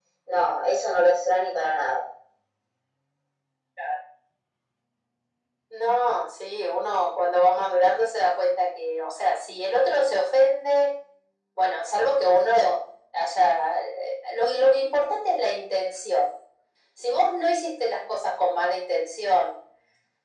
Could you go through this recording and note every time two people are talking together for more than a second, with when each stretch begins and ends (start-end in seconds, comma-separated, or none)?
none